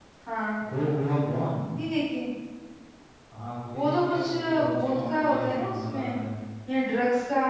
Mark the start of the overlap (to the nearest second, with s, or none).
4 s